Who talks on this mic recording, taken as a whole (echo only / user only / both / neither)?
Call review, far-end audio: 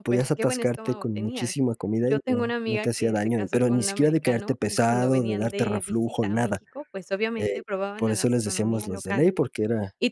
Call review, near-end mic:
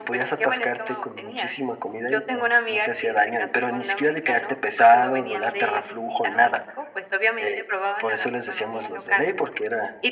both